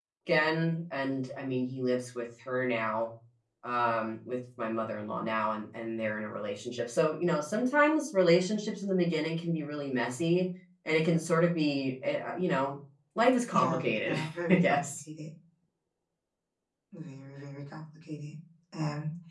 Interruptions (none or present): present